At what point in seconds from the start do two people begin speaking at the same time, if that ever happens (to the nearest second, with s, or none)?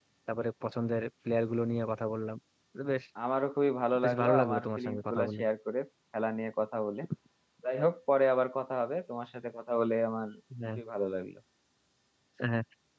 4 s